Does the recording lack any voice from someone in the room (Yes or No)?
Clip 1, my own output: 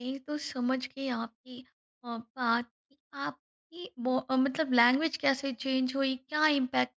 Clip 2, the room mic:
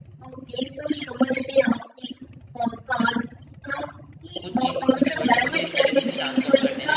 No